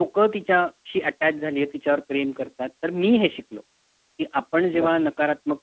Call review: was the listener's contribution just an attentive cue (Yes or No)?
Yes